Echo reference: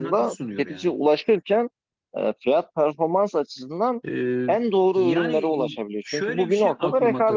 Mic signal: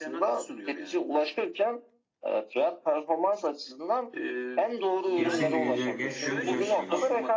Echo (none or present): present